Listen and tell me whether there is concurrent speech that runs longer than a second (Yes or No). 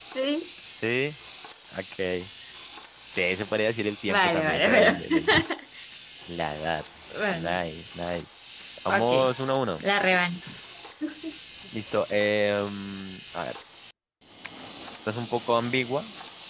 Yes